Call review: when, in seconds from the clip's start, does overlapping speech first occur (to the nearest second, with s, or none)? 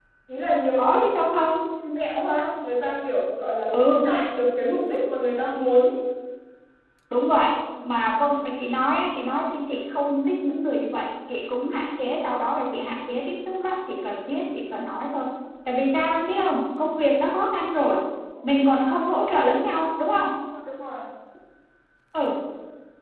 none